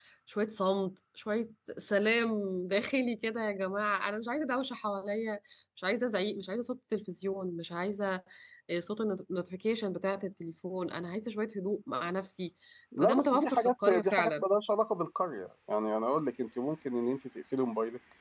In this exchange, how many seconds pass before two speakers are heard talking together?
13.0 s

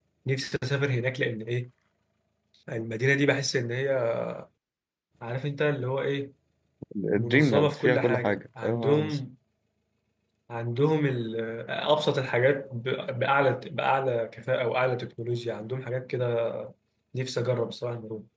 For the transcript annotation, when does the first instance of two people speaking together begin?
7.2 s

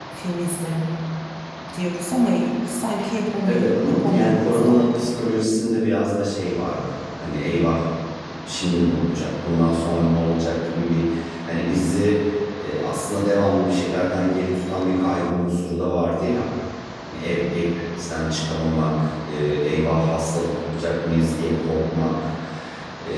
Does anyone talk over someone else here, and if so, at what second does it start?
3.4 s

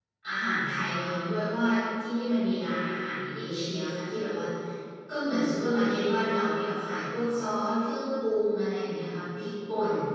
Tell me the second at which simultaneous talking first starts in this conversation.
none

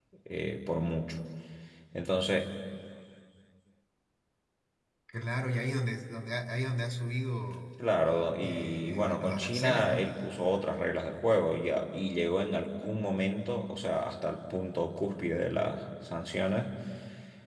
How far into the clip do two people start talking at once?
8.4 s

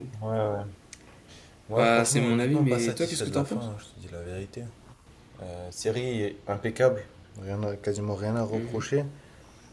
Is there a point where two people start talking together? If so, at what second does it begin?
1.8 s

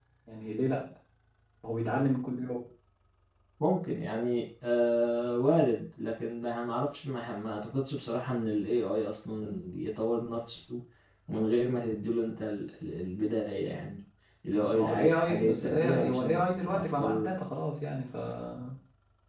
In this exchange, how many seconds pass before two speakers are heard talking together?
14.5 s

